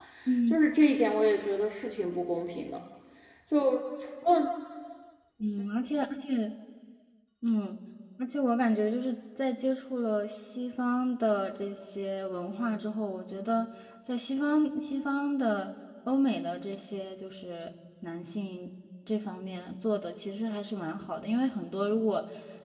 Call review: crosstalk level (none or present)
none